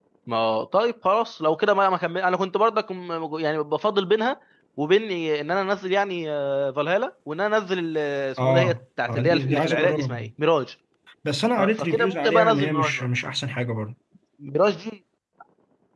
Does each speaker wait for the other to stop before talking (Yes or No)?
No